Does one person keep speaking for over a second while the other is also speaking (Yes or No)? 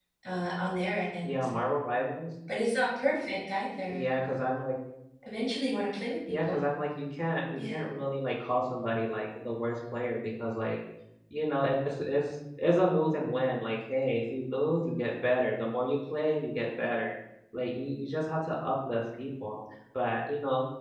No